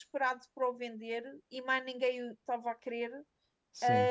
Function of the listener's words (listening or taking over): listening